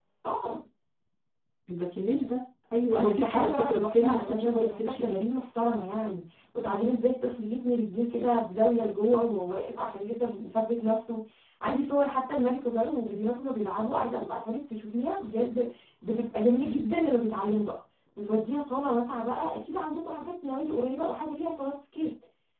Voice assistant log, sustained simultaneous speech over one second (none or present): present